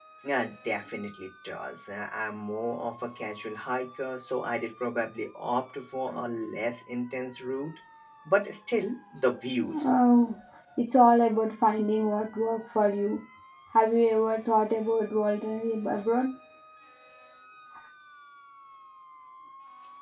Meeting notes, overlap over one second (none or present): none